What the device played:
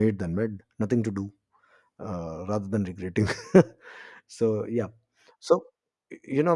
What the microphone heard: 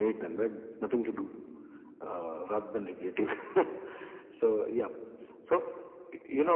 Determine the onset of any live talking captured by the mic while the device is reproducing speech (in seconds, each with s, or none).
none